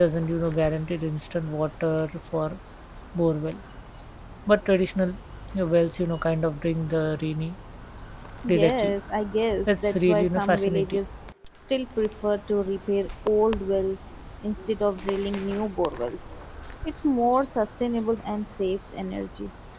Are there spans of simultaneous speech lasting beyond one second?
Yes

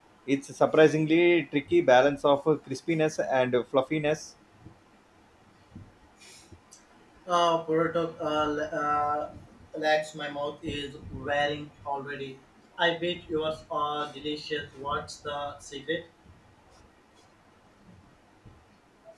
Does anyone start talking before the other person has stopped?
No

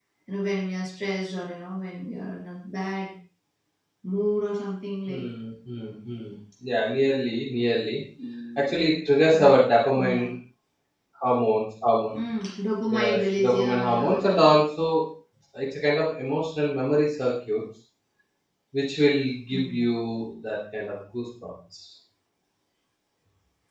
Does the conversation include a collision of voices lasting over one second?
Yes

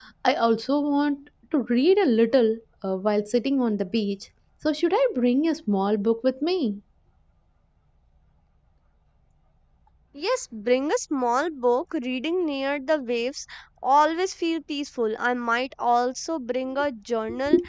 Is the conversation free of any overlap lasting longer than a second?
Yes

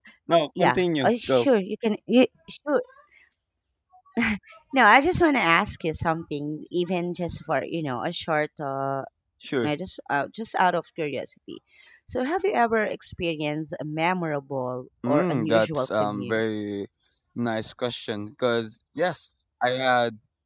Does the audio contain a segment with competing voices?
Yes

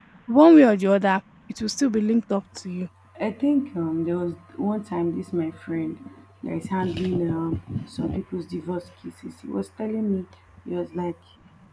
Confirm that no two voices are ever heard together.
Yes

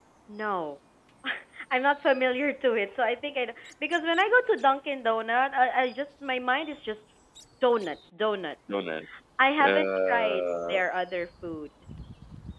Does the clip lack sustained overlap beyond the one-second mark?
No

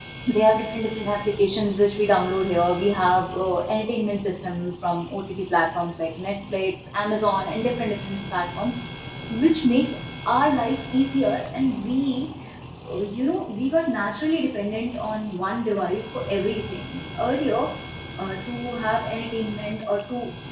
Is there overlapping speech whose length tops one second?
No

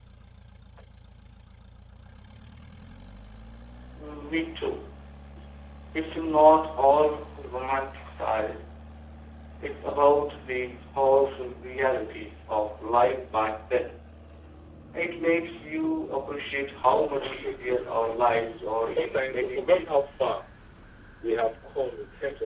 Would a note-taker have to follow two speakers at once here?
Yes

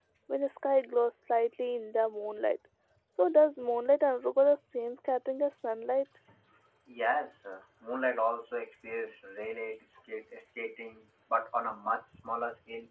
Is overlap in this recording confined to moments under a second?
Yes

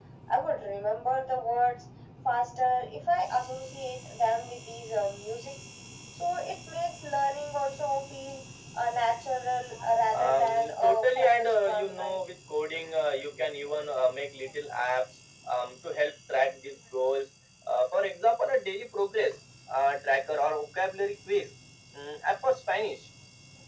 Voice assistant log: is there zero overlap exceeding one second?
No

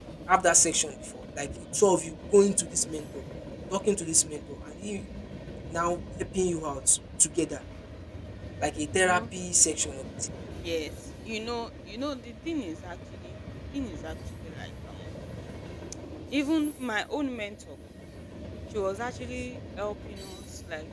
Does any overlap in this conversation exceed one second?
No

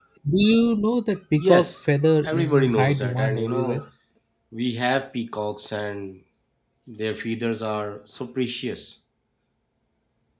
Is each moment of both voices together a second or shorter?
No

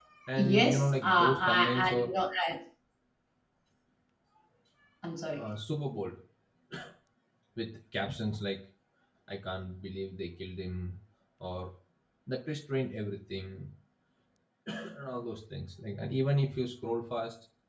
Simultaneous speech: Yes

